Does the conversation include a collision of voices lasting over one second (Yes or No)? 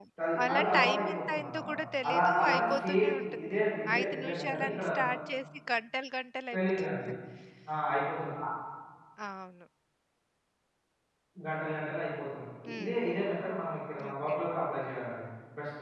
Yes